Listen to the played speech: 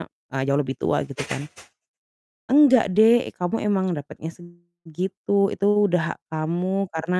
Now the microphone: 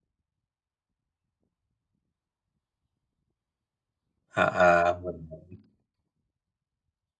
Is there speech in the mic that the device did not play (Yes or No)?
Yes